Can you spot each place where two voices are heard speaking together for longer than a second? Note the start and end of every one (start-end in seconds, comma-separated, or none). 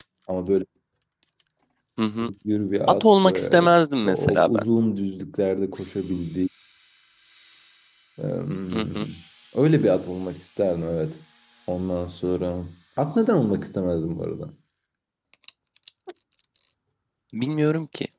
3.0-4.6